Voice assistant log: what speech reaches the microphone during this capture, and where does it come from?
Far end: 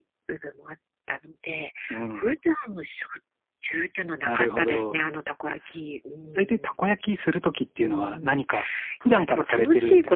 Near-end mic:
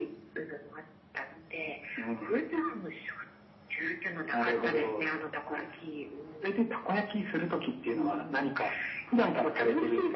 echo only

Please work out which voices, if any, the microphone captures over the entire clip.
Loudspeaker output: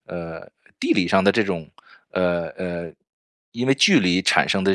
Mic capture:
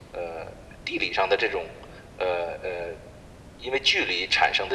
echo only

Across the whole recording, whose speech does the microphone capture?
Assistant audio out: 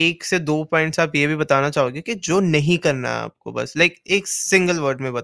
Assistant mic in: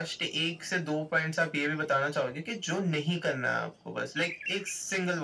echo only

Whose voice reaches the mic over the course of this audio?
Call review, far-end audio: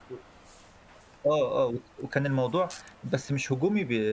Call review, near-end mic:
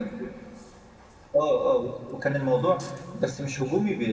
echo only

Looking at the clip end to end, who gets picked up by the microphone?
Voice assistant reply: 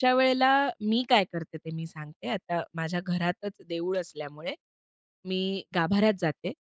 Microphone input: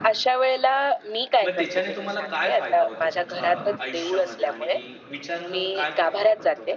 both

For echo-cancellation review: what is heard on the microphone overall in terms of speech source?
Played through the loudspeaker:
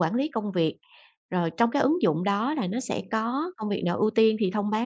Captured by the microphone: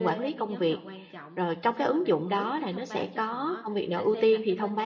both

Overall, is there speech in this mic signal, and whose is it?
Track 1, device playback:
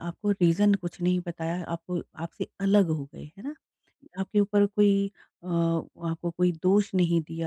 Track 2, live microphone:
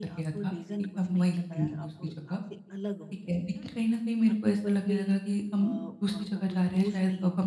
both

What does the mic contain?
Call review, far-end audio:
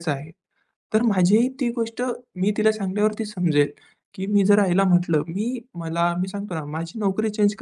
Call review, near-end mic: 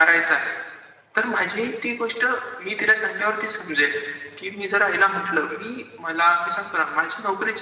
echo only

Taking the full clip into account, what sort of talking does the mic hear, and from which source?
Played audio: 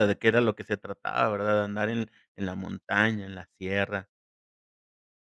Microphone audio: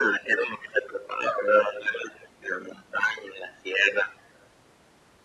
echo only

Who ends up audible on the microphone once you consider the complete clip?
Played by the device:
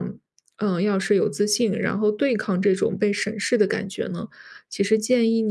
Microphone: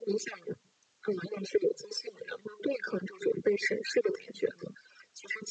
echo only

